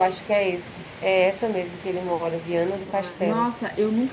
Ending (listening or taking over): taking over